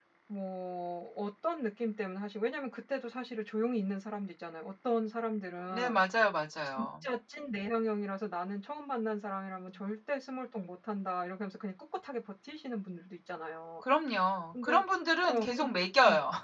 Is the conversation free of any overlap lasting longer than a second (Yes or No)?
Yes